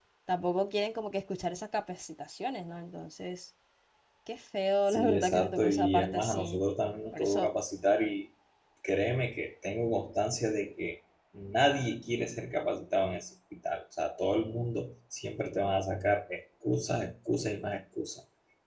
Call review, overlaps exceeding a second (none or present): present